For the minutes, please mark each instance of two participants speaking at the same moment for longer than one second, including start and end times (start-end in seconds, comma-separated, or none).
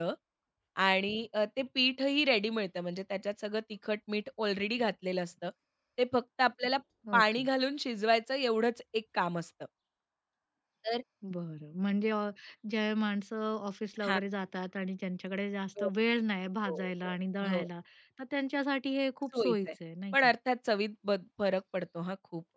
none